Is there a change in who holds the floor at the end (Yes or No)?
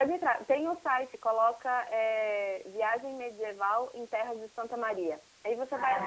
No